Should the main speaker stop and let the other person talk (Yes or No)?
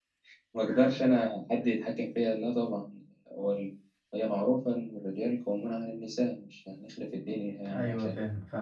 Yes